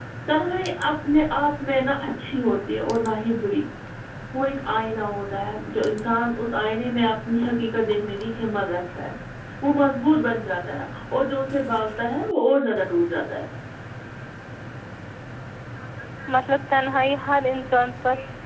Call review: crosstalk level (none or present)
none